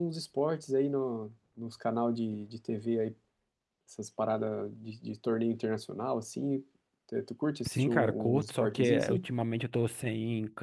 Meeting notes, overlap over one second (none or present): present